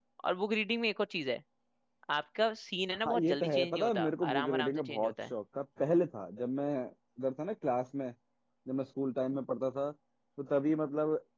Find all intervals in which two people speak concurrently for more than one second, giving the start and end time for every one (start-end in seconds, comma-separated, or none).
3.0-5.3